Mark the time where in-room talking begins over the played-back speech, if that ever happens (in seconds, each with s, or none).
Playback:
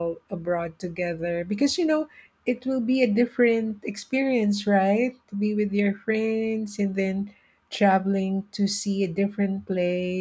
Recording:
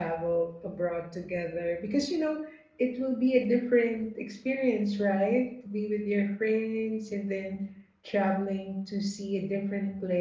none